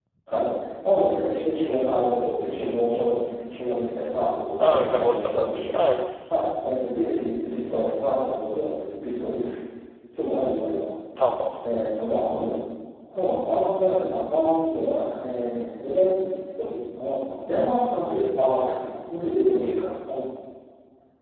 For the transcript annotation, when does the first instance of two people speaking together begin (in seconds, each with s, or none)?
4.6 s